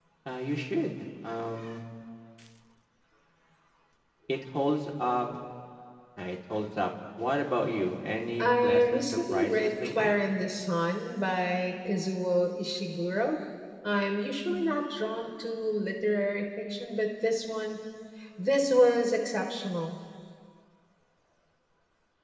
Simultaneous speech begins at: 8 s

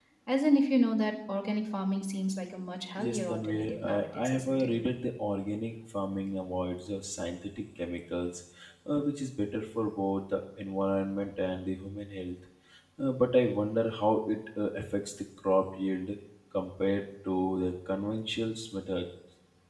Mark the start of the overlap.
3 s

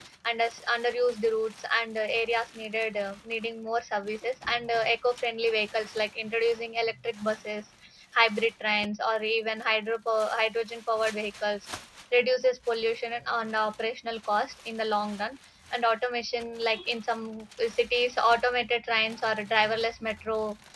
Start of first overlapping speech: none

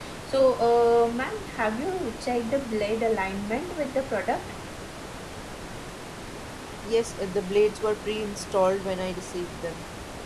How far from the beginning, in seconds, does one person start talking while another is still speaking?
none

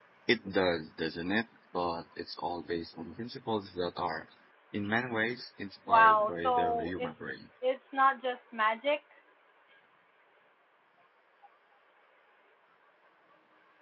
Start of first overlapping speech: 6 s

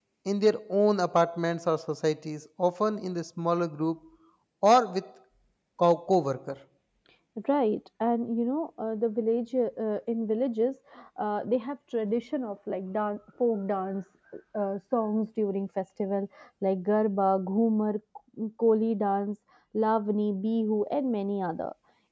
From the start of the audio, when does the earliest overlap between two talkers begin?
none

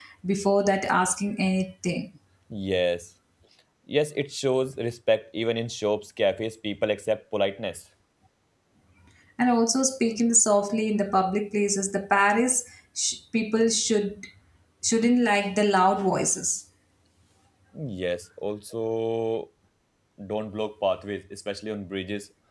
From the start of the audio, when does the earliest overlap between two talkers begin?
none

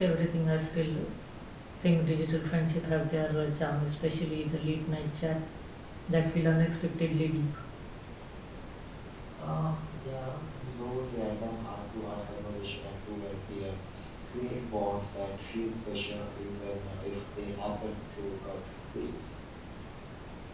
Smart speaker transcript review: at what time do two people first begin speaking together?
none

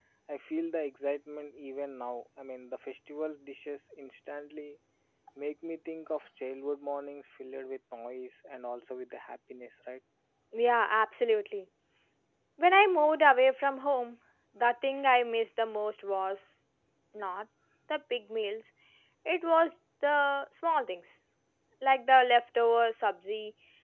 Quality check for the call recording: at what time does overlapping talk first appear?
none

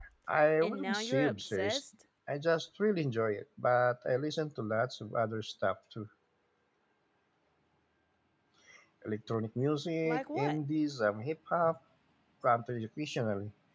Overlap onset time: 1 s

